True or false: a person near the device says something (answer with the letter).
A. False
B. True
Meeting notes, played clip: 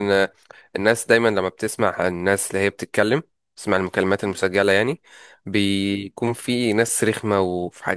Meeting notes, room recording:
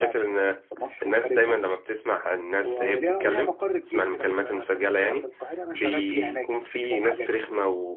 B